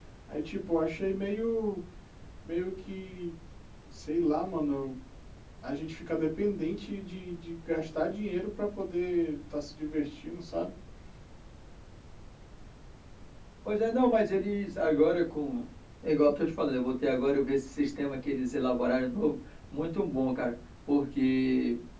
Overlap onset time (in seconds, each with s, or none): none